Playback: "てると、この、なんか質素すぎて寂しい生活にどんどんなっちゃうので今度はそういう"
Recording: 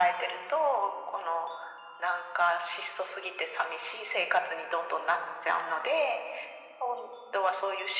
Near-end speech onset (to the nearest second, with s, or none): none